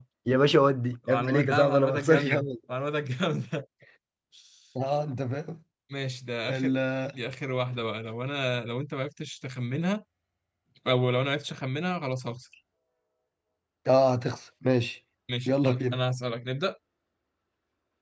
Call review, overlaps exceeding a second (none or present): present